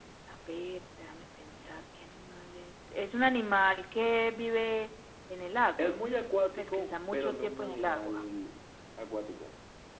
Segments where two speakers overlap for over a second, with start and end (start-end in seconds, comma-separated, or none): 6.6-8.2